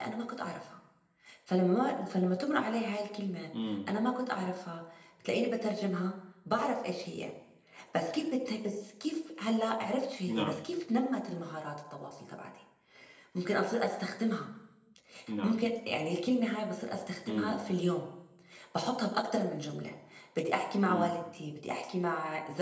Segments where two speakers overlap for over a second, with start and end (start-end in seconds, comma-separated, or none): none